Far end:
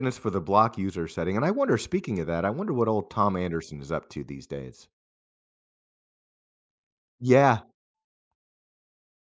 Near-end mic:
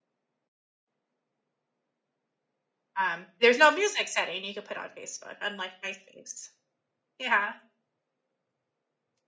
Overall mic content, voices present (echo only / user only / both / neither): user only